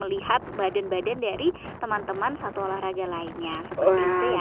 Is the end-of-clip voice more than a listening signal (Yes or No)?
Yes